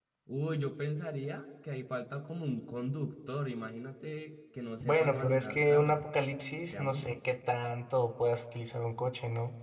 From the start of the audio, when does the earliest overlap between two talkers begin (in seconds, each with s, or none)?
4.8 s